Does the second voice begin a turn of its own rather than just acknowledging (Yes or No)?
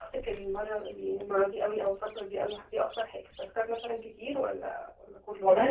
Yes